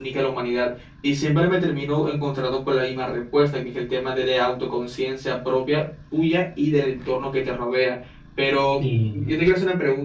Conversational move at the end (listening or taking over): listening